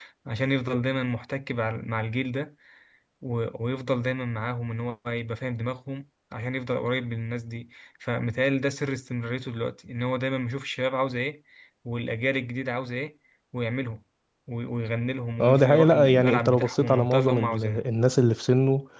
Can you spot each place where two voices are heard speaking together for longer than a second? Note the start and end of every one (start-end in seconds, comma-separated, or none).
15.4-17.8